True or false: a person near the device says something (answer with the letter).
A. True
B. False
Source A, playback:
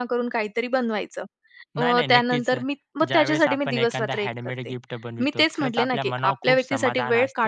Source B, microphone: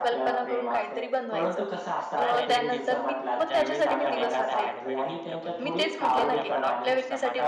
A